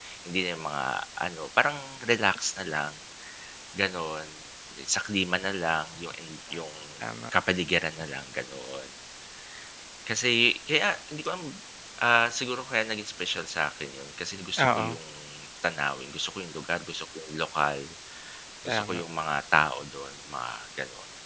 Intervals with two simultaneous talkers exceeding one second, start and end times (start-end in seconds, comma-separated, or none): none